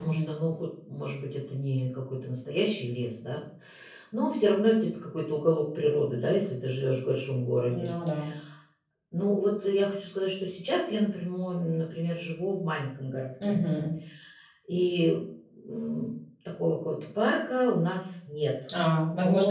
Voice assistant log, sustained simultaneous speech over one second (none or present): none